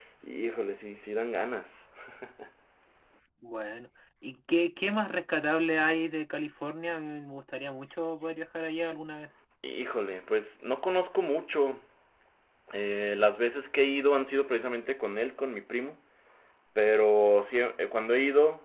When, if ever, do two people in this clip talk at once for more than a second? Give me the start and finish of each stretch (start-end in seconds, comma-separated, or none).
none